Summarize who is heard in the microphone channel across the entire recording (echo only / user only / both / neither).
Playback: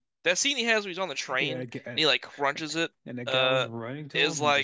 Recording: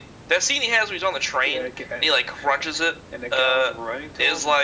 echo only